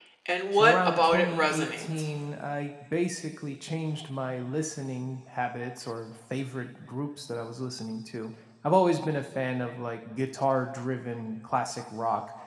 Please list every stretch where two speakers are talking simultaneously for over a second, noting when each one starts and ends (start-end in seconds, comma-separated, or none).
0.5-1.9